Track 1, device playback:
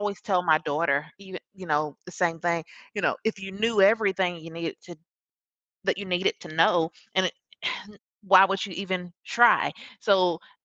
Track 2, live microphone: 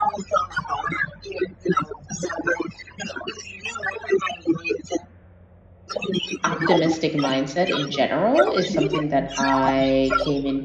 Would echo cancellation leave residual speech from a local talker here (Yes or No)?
Yes